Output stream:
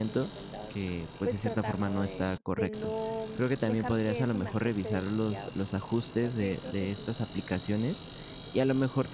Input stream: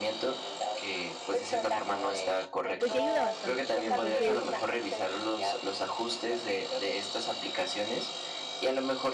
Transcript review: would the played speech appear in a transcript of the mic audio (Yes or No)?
Yes